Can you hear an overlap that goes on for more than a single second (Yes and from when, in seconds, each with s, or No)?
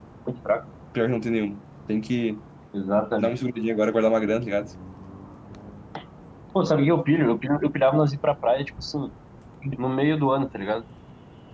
No